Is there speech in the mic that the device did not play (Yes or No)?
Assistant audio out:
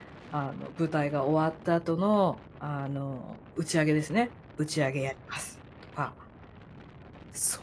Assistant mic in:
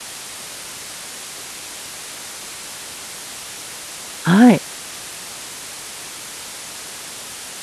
Yes